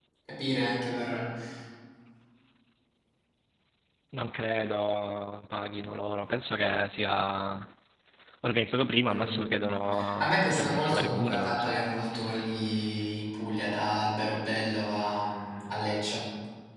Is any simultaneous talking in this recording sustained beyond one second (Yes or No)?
Yes